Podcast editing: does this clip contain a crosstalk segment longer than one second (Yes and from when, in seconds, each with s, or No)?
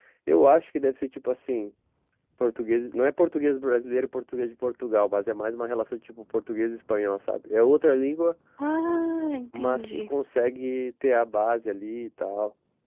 No